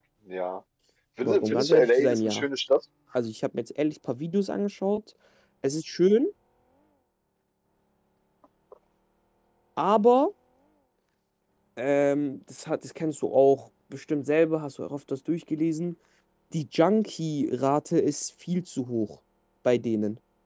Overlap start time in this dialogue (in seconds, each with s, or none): 1.2 s